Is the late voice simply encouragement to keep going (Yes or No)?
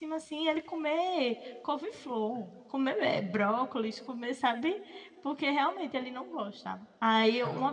Yes